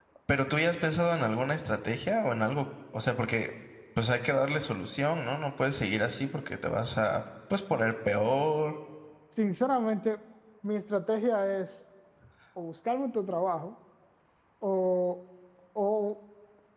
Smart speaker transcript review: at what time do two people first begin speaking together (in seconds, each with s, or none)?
none